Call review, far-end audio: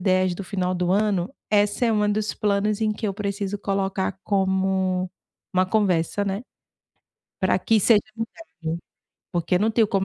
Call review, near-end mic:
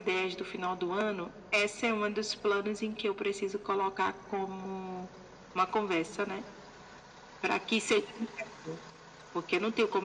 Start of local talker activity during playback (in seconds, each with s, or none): none